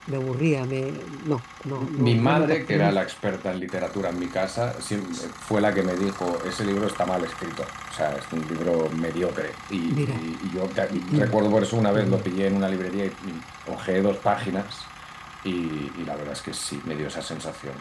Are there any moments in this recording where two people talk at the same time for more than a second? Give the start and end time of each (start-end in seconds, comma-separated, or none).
1.8-3.0